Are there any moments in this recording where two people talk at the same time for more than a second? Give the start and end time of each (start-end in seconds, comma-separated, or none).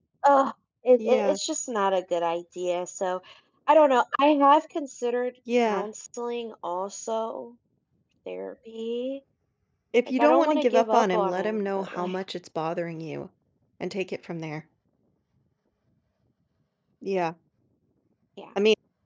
10.2-12.2